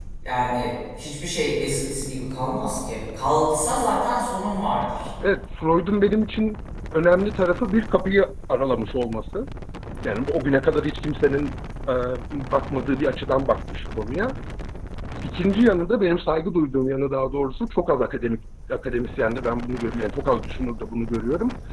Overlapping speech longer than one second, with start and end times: none

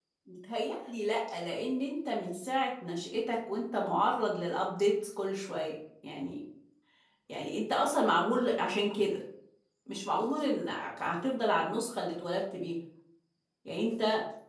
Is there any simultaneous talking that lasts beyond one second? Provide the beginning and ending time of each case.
none

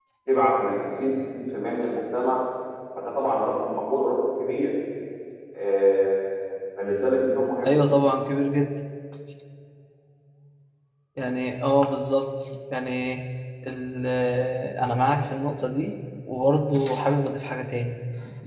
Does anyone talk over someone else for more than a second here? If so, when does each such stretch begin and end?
none

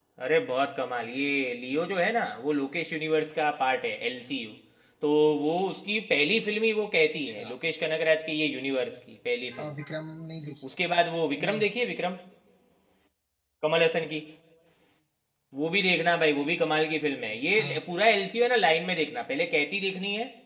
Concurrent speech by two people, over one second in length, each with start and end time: none

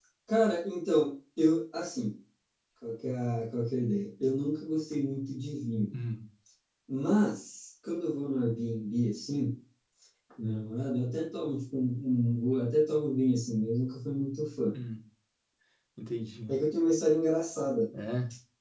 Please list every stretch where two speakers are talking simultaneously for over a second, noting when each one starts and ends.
none

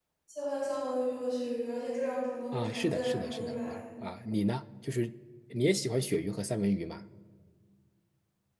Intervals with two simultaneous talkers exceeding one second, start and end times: 2.5-3.8

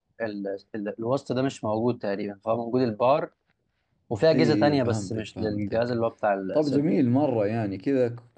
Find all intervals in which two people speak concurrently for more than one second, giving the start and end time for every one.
4.3-5.8

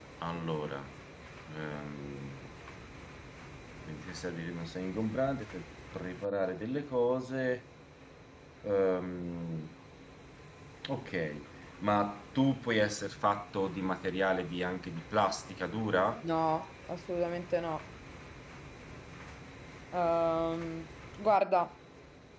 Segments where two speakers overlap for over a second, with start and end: none

